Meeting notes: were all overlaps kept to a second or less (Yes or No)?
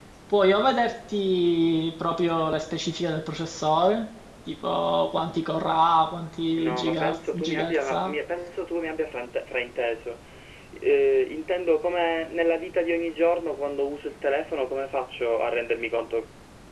No